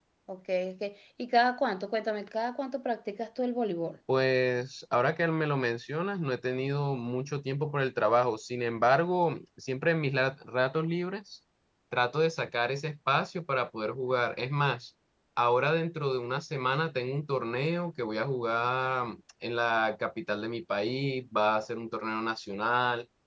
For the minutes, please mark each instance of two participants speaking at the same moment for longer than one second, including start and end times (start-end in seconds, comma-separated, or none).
none